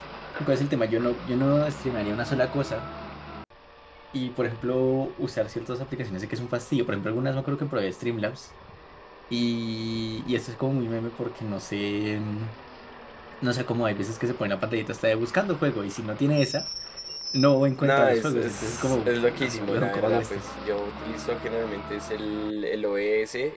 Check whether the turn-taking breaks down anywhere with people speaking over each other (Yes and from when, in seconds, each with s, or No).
Yes, from 17.8 s